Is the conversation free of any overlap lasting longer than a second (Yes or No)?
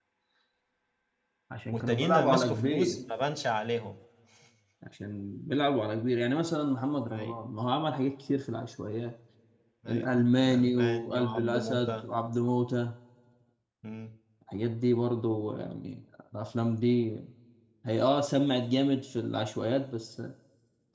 No